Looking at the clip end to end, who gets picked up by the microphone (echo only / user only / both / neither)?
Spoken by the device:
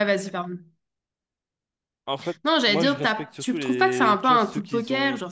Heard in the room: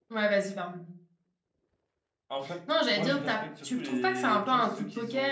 echo only